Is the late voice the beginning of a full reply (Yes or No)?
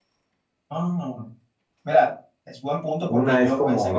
Yes